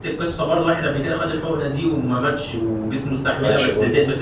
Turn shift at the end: No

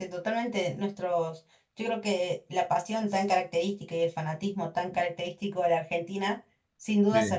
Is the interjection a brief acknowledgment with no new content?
Yes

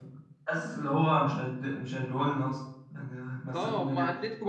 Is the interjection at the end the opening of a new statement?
Yes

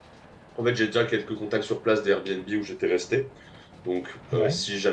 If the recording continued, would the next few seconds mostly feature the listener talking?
No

